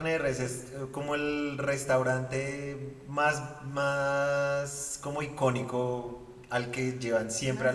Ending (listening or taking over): listening